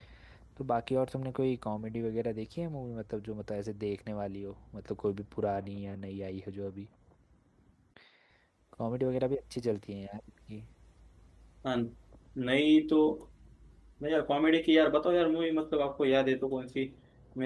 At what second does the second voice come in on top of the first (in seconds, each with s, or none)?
none